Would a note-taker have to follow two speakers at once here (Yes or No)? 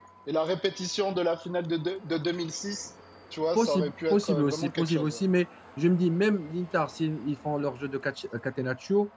Yes